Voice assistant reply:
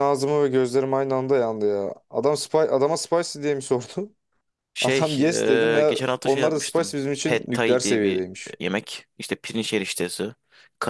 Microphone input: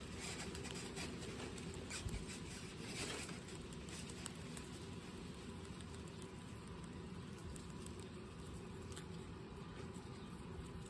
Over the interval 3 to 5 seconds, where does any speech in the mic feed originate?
neither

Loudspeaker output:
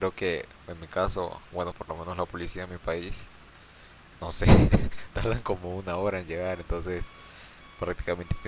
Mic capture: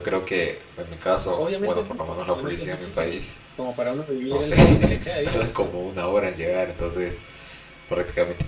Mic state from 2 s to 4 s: both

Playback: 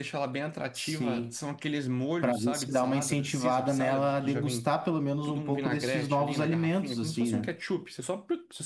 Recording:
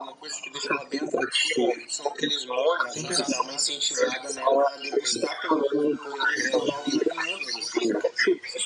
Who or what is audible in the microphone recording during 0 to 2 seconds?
echo only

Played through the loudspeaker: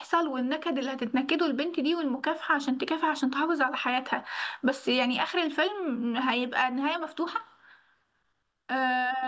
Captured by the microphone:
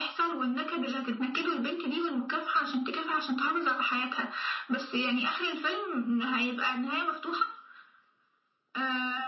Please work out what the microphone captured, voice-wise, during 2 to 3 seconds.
echo only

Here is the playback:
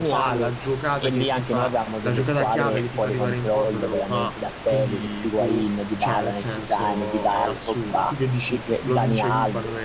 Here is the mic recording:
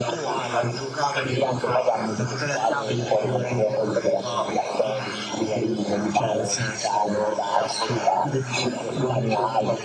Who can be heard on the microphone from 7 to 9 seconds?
echo only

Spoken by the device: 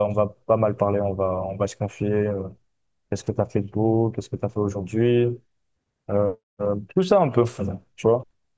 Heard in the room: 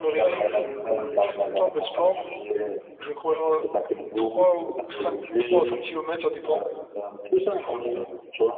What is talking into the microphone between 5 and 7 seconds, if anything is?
both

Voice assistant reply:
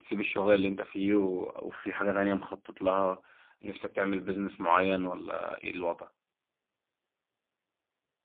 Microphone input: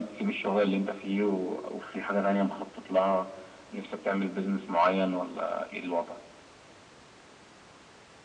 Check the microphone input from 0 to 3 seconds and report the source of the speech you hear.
echo only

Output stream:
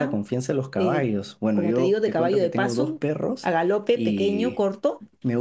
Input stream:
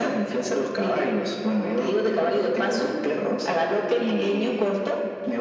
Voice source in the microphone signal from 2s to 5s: echo only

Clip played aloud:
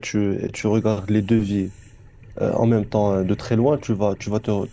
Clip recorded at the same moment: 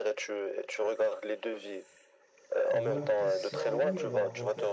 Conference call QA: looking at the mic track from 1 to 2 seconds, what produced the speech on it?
echo only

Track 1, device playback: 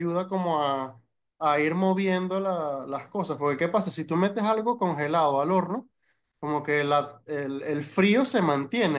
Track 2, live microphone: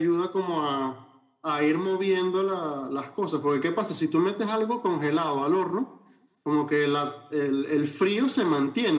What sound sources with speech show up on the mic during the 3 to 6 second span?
echo only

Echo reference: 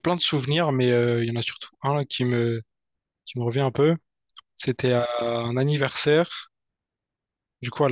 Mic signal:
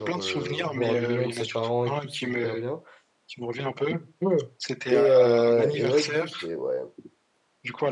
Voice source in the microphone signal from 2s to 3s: both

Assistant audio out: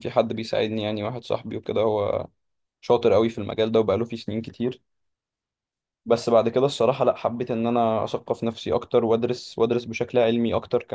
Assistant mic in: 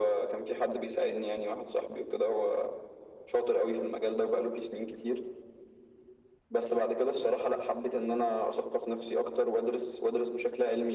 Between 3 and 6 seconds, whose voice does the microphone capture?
echo only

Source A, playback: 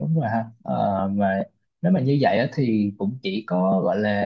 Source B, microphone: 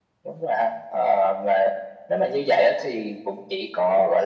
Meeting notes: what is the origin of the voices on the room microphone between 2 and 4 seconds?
echo only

